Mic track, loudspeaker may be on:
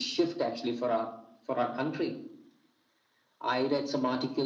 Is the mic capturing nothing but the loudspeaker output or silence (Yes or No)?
Yes